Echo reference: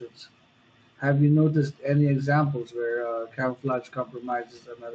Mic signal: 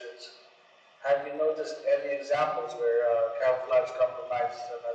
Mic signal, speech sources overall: echo only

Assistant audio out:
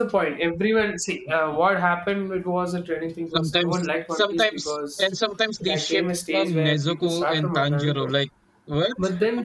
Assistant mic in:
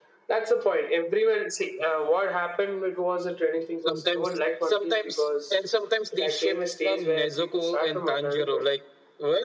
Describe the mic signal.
echo only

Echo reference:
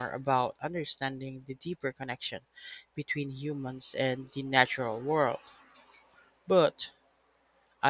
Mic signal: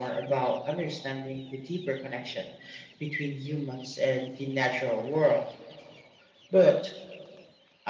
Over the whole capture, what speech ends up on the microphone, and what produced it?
echo only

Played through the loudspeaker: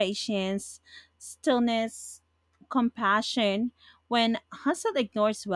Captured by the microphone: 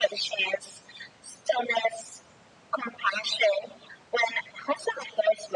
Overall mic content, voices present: echo only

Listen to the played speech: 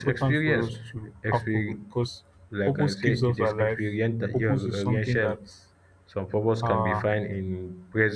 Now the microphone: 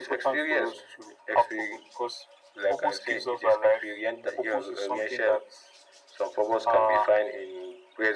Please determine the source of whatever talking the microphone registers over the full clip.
echo only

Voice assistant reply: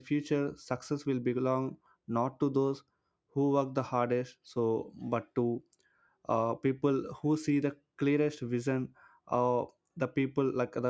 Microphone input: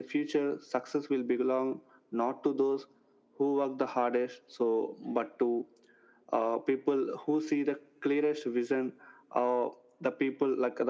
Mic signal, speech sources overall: echo only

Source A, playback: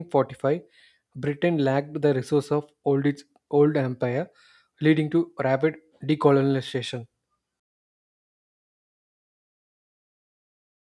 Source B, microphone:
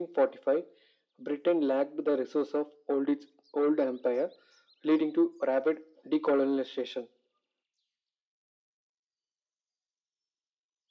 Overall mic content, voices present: echo only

